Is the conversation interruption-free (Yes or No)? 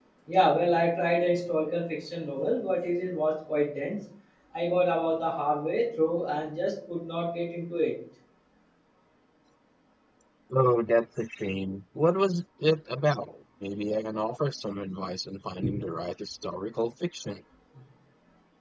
Yes